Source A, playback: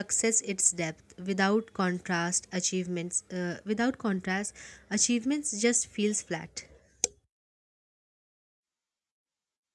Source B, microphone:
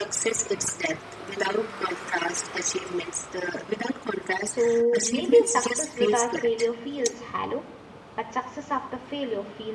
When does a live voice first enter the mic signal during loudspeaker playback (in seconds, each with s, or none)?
4.4 s